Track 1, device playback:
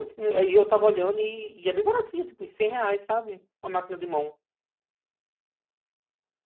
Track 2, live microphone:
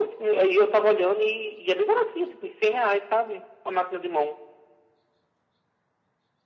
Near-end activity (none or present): none